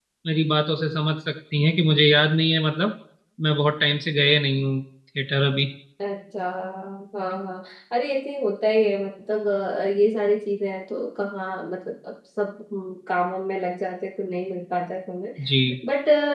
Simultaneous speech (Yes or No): No